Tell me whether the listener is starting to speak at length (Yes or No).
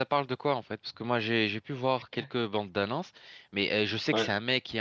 No